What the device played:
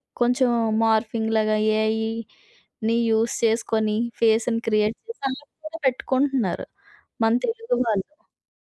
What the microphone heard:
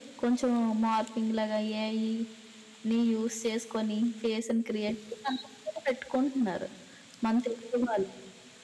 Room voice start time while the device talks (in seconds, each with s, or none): none